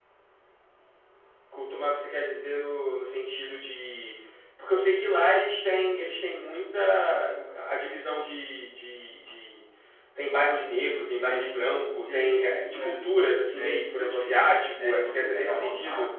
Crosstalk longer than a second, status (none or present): present